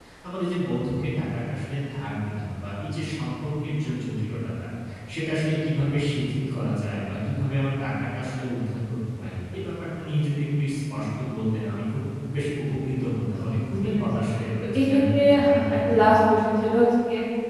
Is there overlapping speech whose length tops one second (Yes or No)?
Yes